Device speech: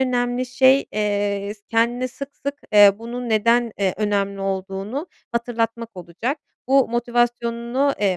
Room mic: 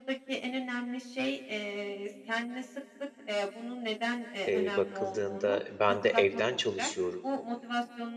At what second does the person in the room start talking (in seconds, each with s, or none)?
4.4 s